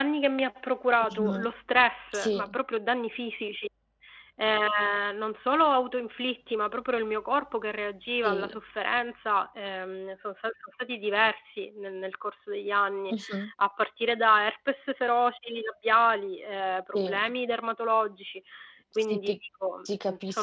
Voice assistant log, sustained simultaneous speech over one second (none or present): none